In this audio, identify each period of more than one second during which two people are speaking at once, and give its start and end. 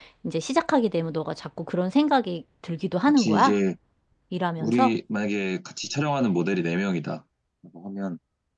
none

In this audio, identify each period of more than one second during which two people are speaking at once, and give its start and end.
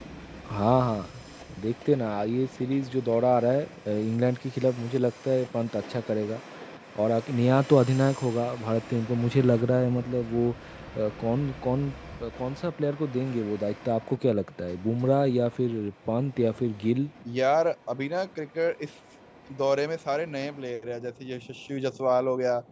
none

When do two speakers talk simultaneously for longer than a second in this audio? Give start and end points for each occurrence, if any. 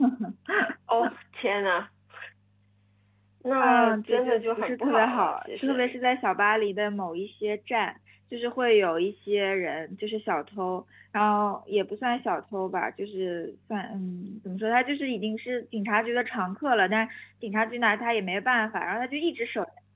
3.6-5.9

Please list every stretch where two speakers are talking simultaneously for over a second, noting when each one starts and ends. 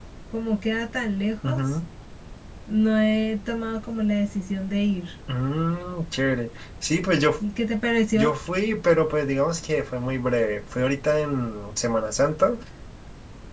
none

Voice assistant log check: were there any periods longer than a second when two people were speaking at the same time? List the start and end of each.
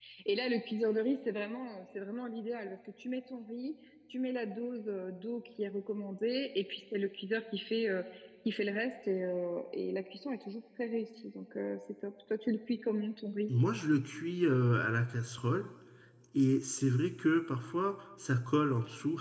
none

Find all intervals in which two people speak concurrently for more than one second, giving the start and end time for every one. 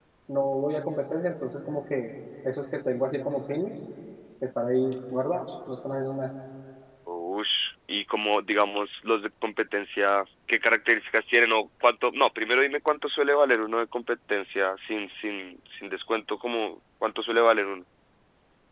none

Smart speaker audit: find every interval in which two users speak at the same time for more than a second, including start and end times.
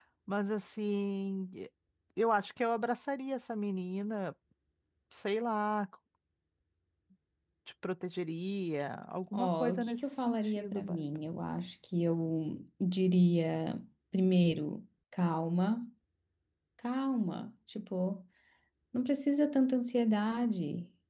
9.3-11.0

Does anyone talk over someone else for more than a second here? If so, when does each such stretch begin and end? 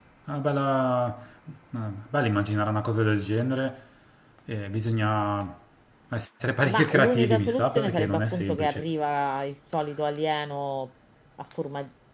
6.6-8.9

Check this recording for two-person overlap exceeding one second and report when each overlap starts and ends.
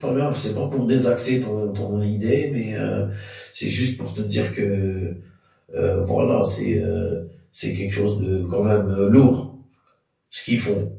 none

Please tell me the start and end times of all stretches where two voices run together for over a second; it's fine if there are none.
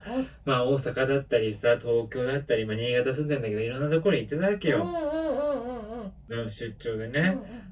none

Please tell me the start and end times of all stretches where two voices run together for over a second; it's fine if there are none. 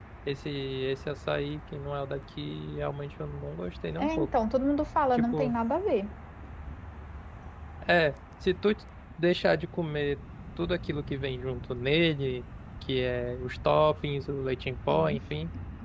none

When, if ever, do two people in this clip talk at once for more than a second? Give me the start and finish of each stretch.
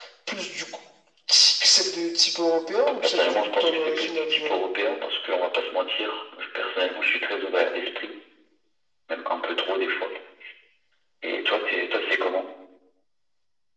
3.0-4.6

